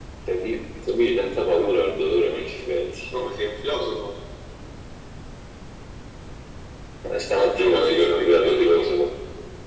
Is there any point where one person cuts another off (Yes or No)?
Yes